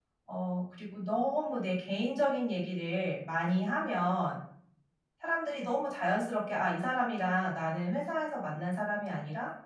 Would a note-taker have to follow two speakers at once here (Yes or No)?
No